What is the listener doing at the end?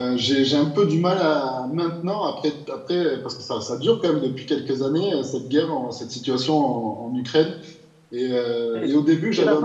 taking over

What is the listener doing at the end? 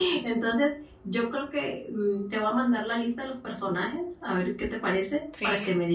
listening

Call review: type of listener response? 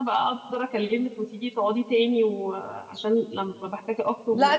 taking over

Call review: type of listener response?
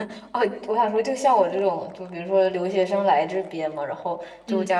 listening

